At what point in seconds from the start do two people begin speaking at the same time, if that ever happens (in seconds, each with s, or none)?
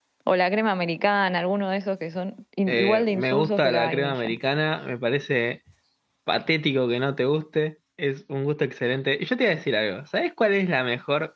2.7 s